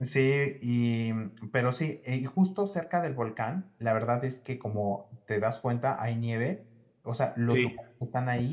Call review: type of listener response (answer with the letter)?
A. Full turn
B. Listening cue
B